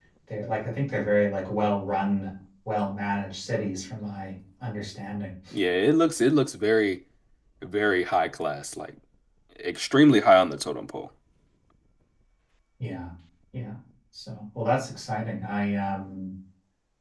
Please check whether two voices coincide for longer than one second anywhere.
No

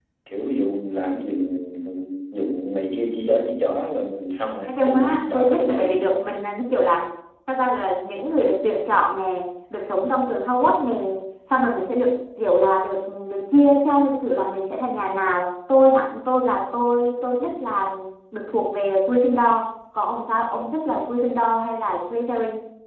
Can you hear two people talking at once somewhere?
Yes, from 4.7 s

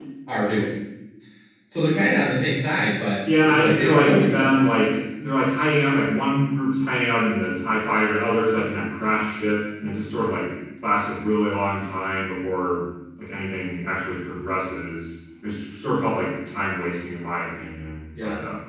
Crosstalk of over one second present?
Yes, from 3.2 s

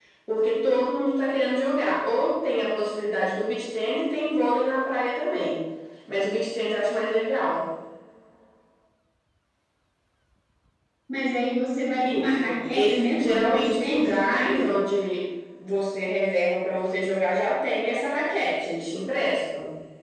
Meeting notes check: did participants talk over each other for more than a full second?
Yes, from 12.0 s

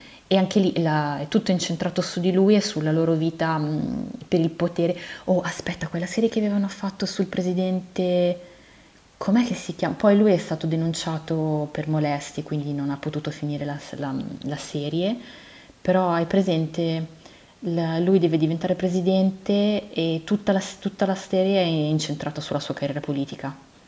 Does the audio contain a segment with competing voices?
No

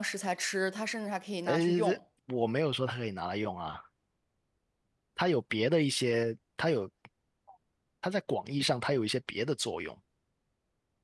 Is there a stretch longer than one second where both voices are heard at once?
No

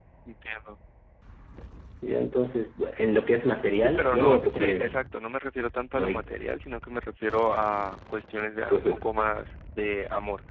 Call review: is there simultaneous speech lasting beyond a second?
Yes, from 3.8 s

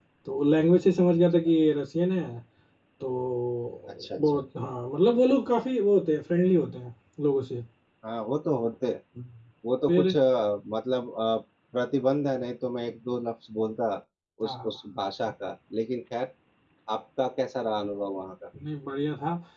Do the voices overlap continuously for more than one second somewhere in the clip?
No

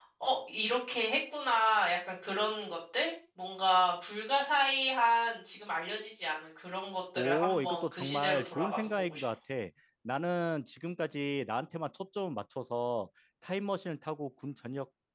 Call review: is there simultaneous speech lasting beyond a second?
Yes, from 7.2 s

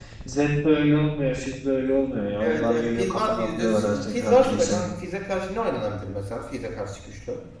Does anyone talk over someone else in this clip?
Yes, from 2.4 s

